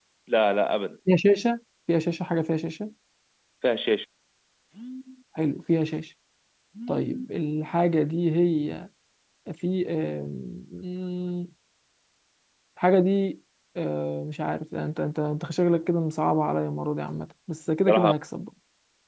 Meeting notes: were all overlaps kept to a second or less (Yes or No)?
Yes